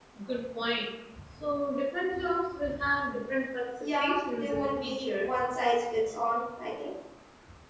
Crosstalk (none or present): present